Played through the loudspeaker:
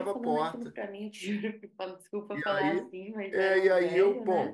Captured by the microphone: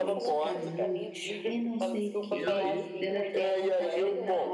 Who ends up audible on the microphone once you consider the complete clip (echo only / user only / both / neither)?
both